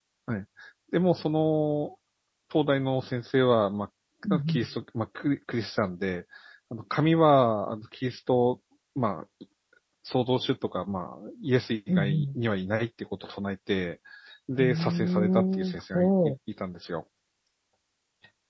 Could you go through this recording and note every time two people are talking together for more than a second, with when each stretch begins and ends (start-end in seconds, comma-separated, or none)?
14.6-16.3